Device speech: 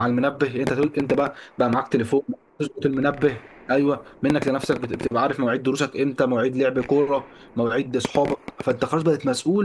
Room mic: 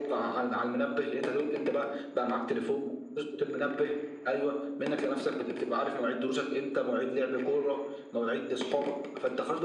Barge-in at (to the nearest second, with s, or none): none